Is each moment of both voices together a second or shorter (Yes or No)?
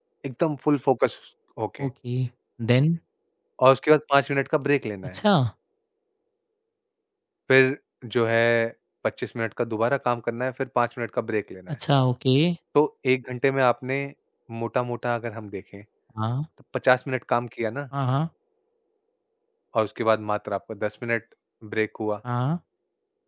Yes